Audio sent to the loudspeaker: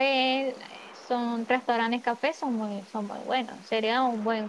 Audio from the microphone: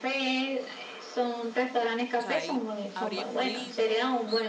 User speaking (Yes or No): Yes